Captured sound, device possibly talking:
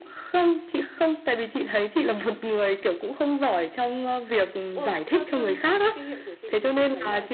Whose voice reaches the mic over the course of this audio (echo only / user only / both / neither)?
both